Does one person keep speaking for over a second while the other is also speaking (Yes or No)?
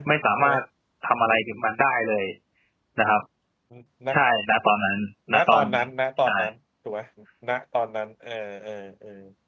No